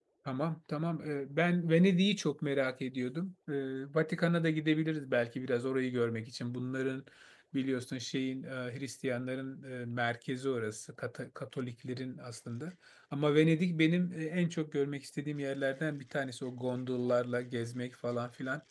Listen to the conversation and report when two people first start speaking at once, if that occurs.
none

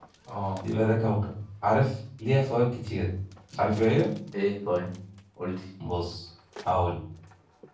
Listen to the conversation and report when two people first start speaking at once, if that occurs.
none

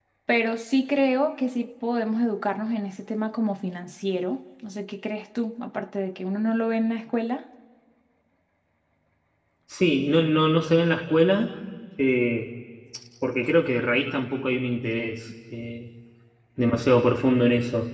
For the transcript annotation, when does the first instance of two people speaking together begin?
none

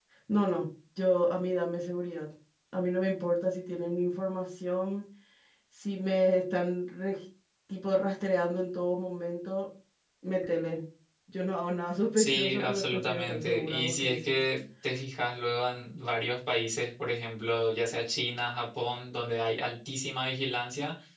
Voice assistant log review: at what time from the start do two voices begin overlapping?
12 s

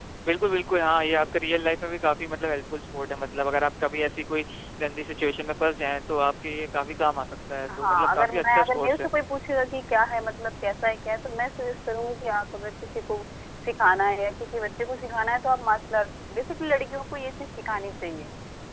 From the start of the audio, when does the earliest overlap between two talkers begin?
8 s

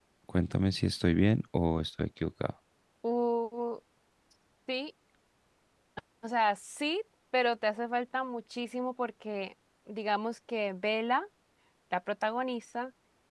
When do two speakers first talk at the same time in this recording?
none

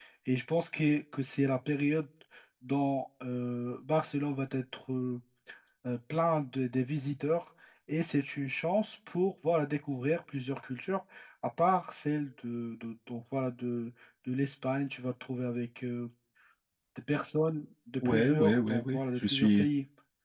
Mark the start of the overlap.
18 s

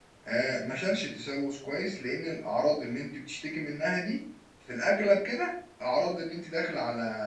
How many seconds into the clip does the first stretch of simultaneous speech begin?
none

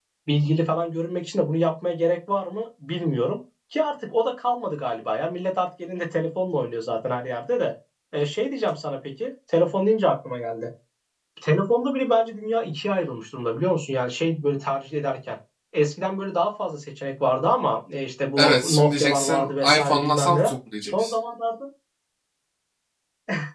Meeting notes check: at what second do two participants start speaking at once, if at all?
18 s

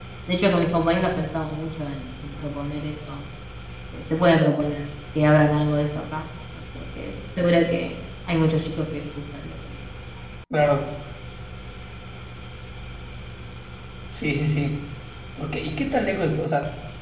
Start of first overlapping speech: none

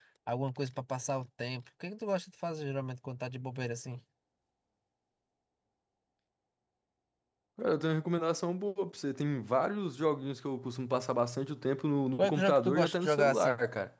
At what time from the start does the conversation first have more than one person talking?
12 s

